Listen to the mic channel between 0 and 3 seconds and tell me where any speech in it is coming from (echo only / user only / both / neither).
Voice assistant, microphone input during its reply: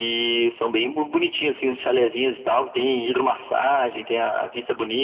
echo only